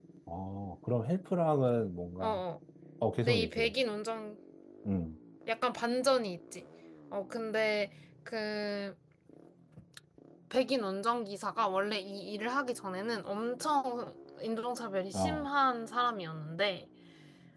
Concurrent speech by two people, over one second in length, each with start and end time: none

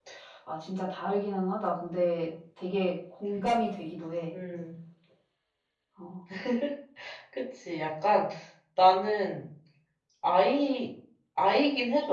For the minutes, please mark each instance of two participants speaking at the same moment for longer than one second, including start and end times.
none

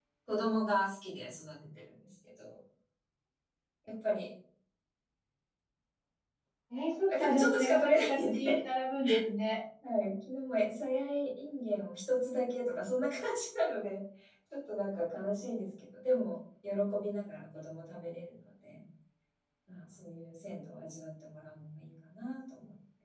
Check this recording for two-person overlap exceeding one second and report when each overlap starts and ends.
7.1-8.6

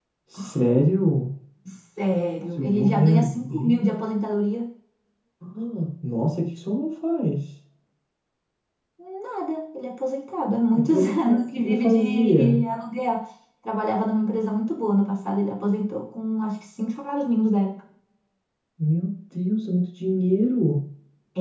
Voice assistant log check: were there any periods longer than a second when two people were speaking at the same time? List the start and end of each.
2.6-3.9, 10.7-12.6

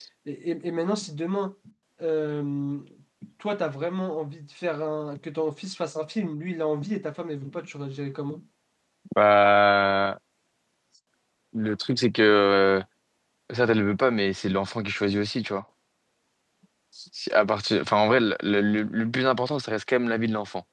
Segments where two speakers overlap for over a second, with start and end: none

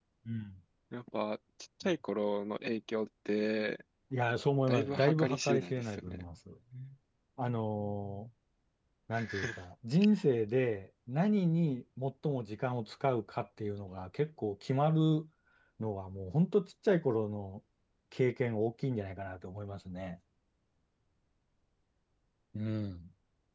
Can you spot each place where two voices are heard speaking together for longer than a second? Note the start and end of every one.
4.7-6.2

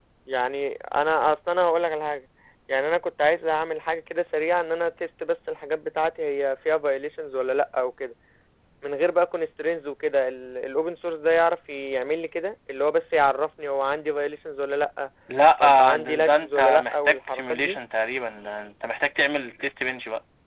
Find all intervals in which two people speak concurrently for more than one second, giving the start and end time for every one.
15.6-17.8

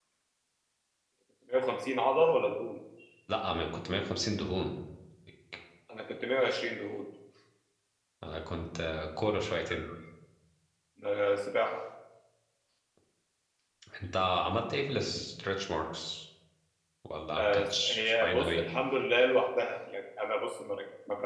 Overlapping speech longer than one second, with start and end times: 17.4-18.6

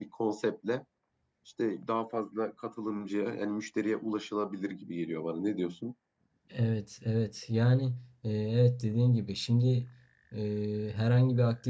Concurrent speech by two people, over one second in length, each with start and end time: none

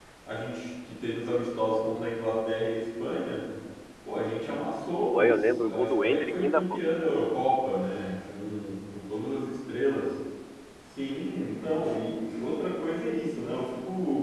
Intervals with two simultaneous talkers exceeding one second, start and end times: 5.0-6.8

